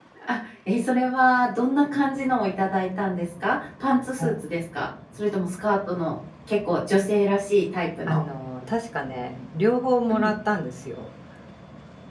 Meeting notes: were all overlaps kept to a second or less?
Yes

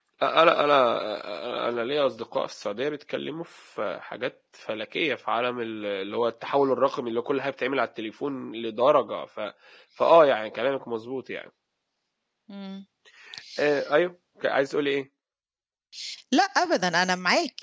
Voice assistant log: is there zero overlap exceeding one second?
Yes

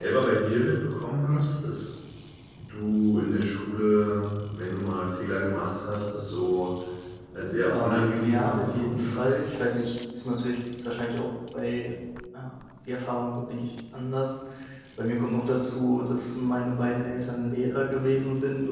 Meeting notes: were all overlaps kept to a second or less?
No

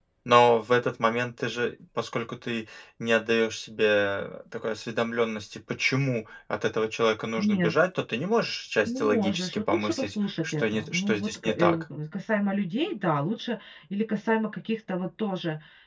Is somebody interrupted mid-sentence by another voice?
Yes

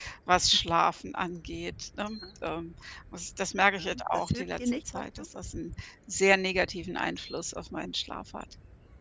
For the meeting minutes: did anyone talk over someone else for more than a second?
Yes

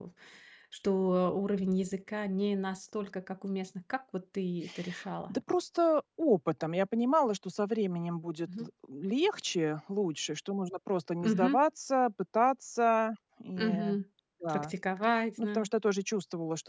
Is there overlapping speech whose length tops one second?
No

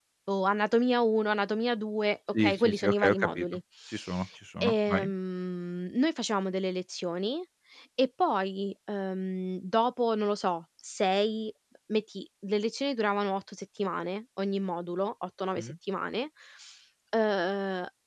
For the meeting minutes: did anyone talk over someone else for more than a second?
Yes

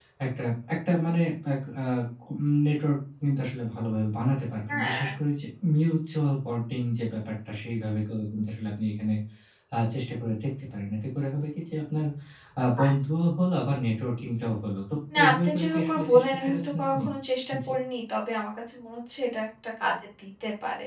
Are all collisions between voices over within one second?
No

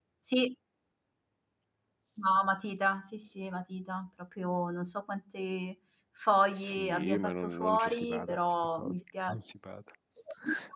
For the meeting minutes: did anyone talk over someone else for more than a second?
Yes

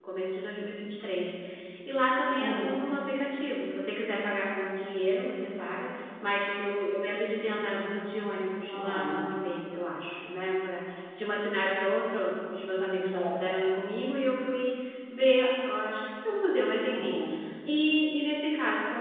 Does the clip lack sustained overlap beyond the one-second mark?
Yes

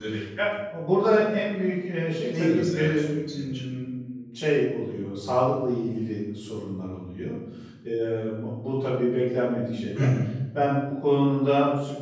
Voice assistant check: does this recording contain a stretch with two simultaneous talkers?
Yes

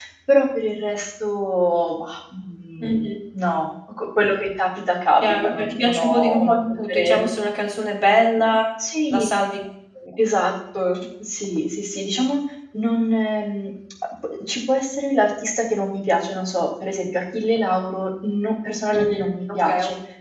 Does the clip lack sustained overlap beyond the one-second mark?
No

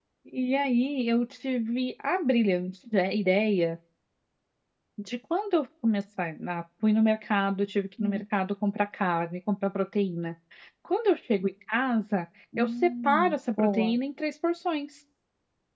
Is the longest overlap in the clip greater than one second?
Yes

